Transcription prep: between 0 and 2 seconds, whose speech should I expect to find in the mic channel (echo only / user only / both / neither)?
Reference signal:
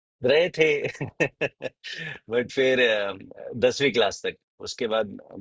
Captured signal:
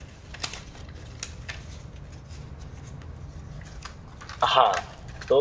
neither